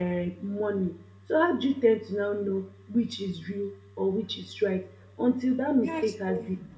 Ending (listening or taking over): listening